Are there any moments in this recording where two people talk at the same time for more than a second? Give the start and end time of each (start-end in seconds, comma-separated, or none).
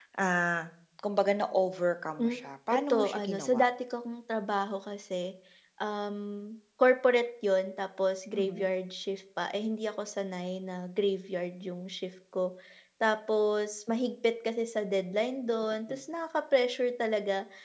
2.2-3.6